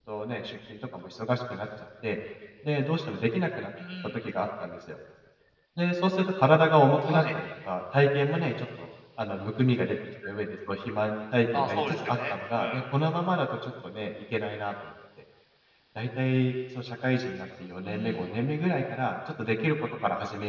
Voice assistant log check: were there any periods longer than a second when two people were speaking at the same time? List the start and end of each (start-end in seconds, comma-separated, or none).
11.5-12.8